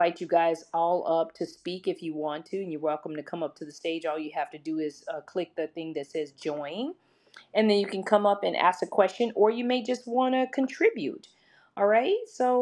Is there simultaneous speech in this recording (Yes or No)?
No